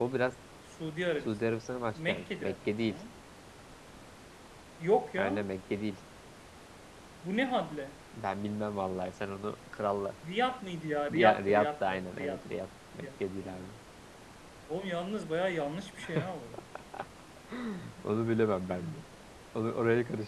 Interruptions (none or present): present